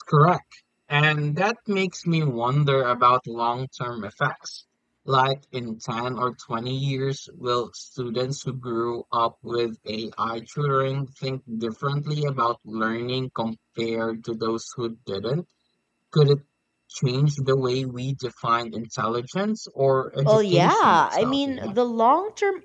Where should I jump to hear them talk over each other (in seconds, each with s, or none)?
20.2 s